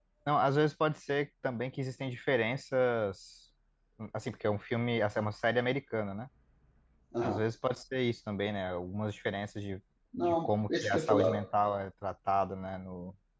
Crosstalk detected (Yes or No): Yes